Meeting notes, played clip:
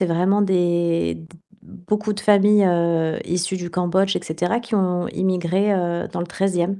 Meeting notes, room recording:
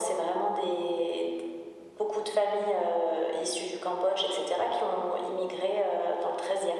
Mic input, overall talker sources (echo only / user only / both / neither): echo only